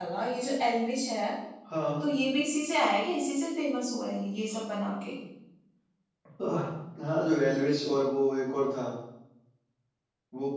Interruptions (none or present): none